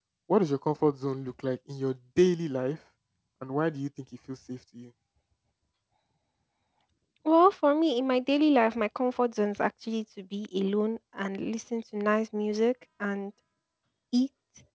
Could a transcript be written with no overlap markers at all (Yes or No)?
Yes